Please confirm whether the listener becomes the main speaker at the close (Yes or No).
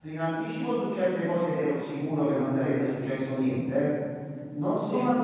No